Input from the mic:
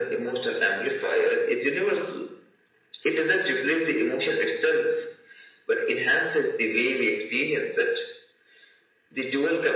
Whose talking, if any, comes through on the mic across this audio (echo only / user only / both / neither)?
echo only